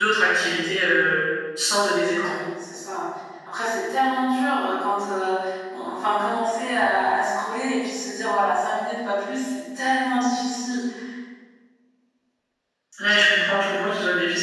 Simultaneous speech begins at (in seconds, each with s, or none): none